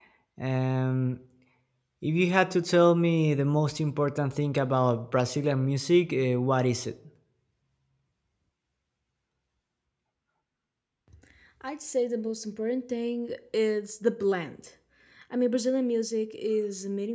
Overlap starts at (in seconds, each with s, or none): none